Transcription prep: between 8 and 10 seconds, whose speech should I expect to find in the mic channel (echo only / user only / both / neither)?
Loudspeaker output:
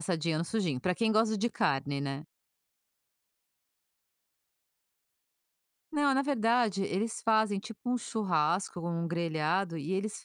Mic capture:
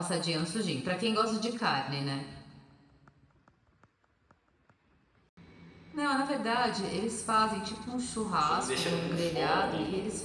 both